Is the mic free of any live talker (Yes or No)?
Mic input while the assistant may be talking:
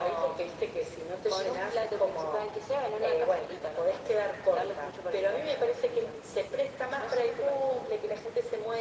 Yes